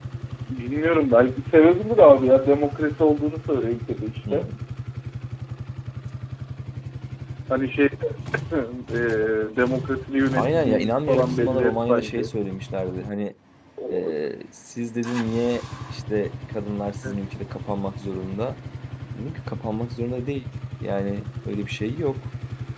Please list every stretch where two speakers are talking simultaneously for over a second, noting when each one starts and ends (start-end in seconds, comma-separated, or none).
10.3-12.3